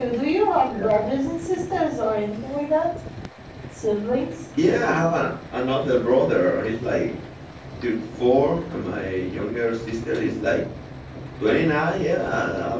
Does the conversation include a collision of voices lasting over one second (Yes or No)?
No